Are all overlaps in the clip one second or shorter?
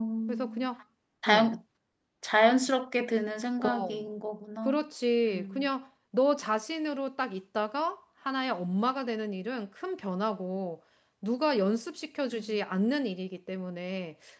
Yes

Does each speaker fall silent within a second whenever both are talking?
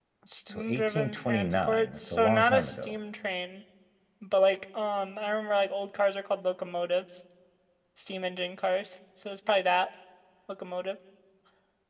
No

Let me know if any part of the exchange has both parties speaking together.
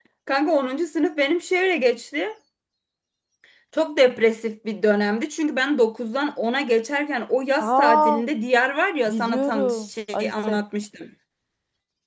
Yes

